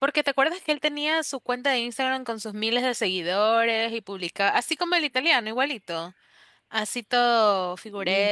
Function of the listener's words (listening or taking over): taking over